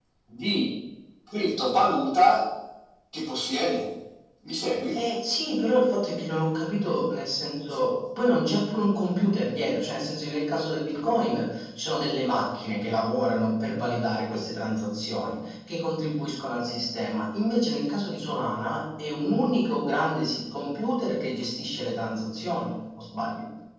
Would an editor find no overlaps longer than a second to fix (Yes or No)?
Yes